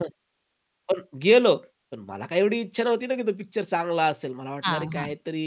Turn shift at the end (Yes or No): No